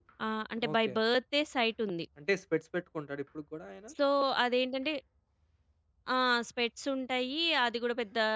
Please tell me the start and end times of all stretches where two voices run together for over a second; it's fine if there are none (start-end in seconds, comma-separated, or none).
none